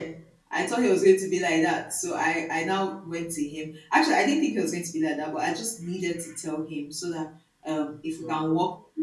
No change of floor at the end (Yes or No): Yes